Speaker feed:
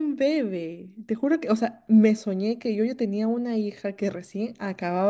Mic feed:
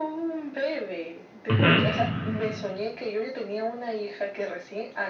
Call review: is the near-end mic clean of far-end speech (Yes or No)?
No